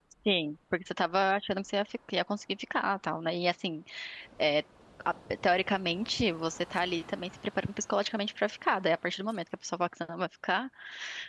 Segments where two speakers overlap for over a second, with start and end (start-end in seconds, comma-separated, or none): none